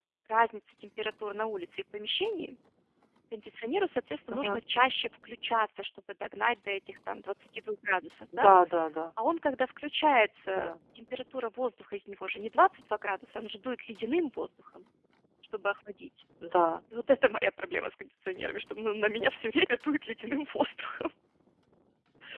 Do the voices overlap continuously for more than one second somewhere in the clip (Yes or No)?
No